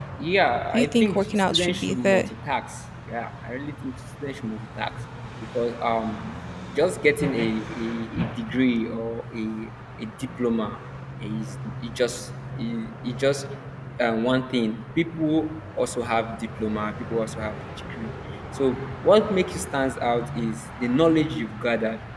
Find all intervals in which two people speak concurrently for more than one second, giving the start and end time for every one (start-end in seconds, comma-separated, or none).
0.7-2.3